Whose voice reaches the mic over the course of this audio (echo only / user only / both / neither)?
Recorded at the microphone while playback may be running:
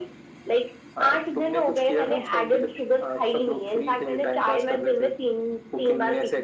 echo only